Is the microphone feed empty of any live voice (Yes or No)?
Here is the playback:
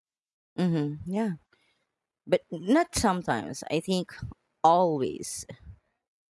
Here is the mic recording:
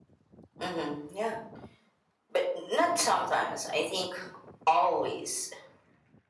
Yes